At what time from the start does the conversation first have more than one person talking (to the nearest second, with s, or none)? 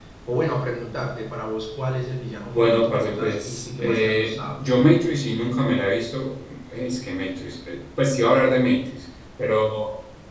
3 s